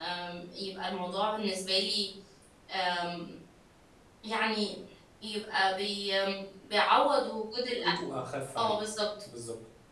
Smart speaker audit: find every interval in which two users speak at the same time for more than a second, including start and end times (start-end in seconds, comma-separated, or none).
none